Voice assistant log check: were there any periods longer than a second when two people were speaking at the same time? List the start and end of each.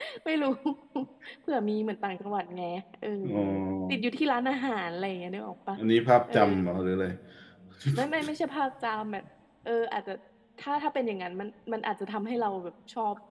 none

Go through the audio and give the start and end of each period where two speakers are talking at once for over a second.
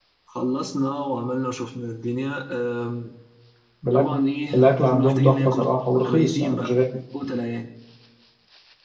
4.5-6.8

